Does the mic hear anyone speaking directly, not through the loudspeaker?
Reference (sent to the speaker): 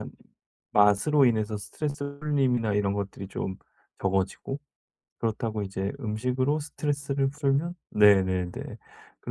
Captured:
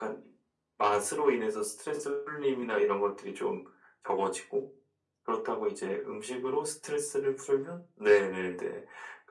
No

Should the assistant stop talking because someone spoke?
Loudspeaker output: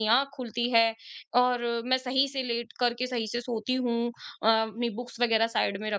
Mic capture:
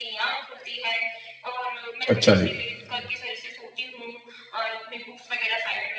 Yes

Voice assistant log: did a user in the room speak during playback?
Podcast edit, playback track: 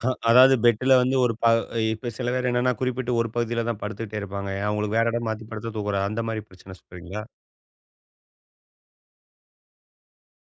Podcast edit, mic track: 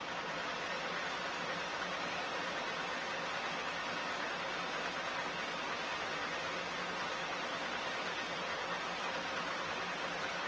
No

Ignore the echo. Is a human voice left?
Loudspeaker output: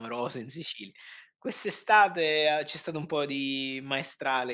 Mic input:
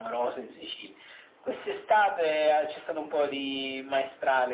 No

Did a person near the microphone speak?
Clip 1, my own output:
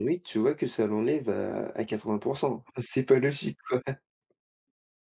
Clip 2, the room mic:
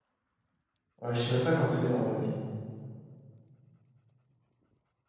Yes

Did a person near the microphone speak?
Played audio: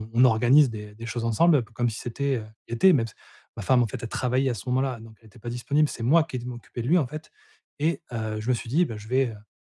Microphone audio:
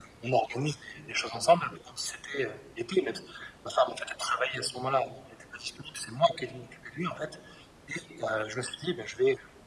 No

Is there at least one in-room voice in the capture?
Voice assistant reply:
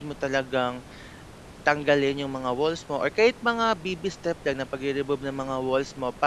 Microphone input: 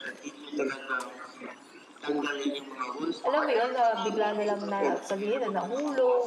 Yes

